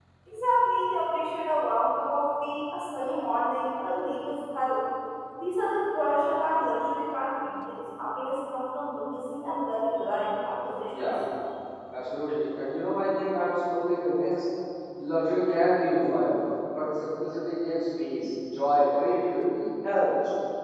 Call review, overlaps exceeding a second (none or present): none